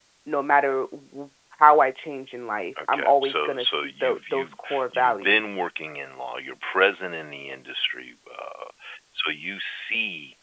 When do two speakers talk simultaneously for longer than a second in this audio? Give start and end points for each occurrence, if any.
2.8-5.4

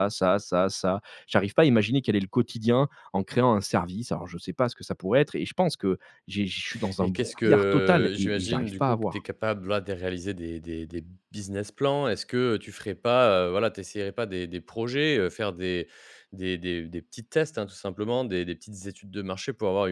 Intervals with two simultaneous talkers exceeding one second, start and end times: 7.0-9.2

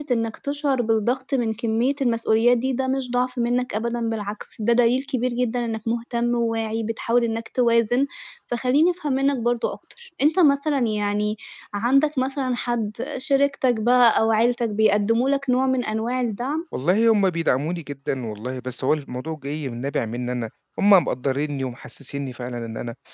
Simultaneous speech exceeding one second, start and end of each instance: none

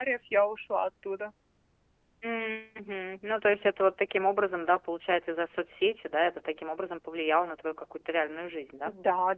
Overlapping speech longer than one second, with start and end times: none

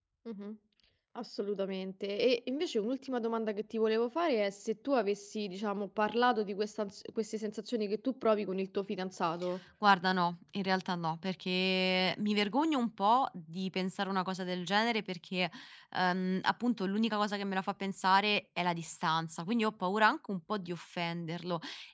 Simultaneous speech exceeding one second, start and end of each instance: none

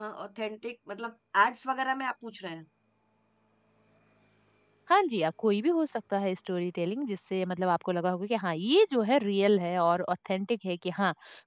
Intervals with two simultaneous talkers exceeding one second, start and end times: none

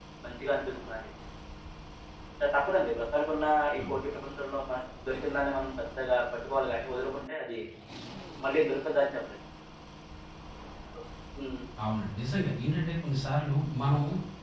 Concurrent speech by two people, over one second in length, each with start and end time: none

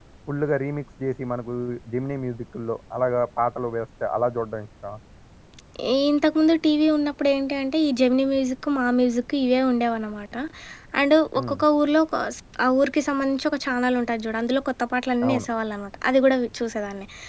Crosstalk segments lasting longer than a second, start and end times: none

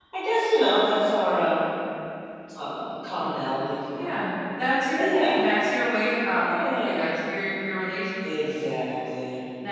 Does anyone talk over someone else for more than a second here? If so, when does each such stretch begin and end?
none

